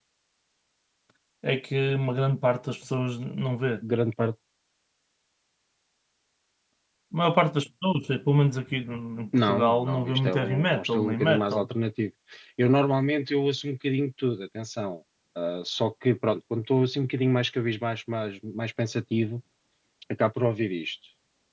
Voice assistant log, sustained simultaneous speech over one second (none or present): present